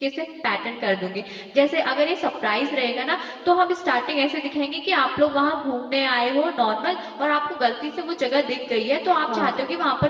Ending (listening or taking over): listening